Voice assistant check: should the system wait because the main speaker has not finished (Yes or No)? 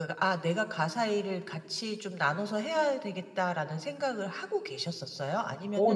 No